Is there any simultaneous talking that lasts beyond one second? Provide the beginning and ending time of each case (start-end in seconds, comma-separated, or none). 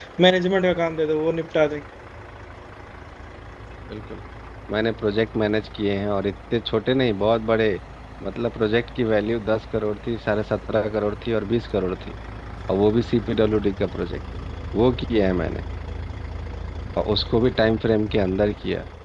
none